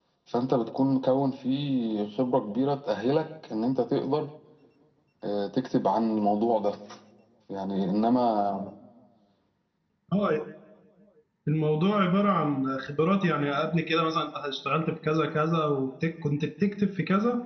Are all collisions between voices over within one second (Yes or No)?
Yes